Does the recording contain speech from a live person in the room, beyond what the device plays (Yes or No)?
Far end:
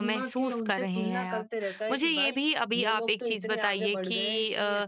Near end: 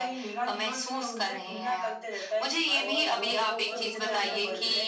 Yes